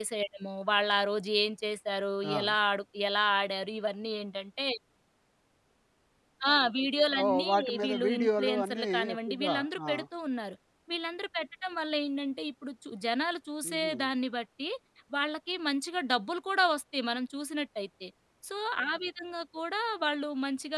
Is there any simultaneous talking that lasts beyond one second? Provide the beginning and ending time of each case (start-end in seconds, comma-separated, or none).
7.3-9.9